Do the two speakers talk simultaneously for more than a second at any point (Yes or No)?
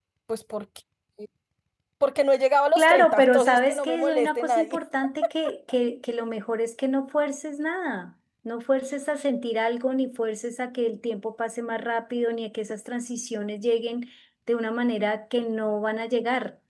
Yes